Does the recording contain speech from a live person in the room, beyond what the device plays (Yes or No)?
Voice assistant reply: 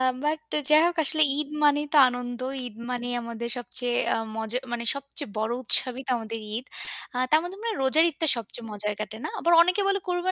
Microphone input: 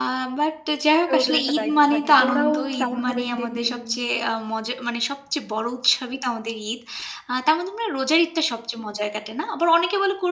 Yes